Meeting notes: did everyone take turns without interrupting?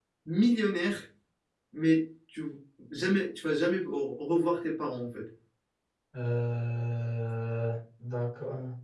Yes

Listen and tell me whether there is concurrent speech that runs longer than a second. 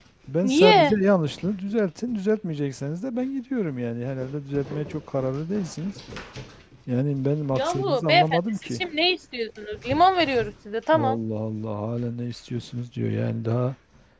Yes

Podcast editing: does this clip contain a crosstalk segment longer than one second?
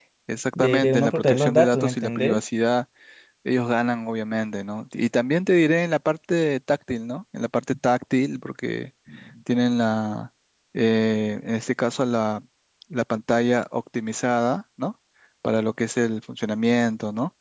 Yes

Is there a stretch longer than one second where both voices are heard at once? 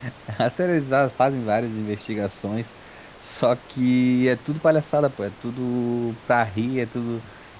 No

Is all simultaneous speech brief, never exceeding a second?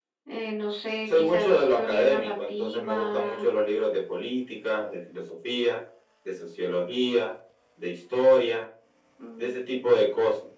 No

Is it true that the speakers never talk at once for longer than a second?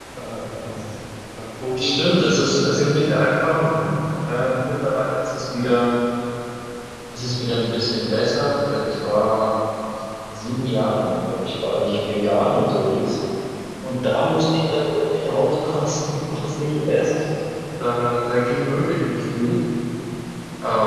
No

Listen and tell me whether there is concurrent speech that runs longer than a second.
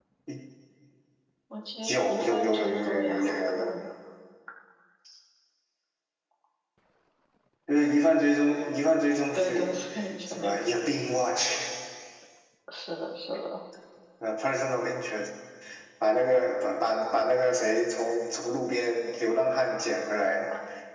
Yes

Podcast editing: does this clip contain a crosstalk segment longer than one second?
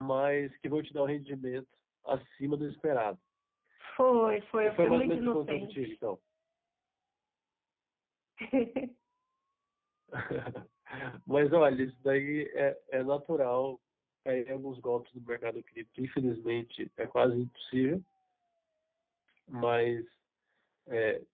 Yes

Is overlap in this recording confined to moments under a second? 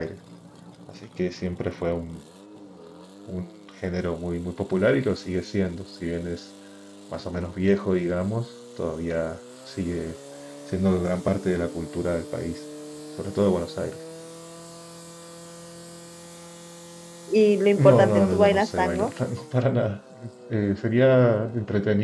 No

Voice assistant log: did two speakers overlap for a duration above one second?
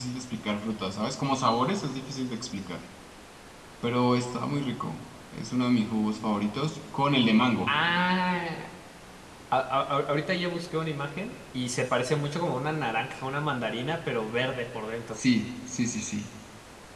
No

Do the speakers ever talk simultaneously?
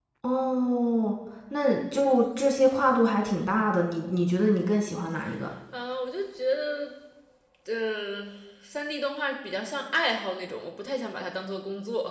No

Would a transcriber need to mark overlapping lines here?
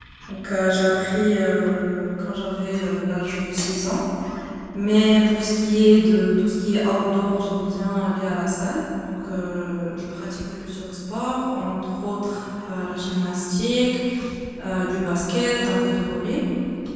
No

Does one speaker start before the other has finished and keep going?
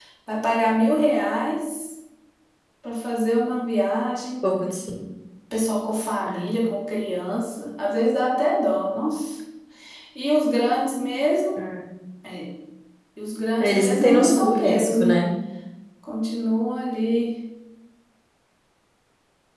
Yes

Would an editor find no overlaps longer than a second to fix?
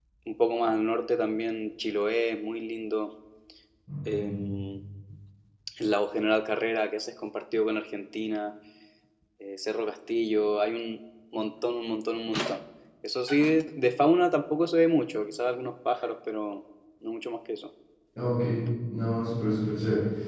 Yes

